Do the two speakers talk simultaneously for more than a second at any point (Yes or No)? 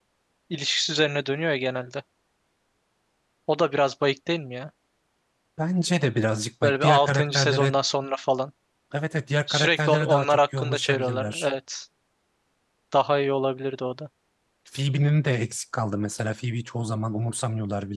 Yes